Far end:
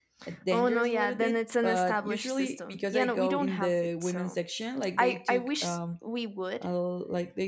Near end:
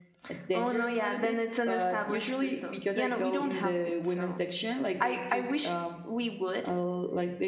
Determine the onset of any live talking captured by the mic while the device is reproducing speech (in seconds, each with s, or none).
none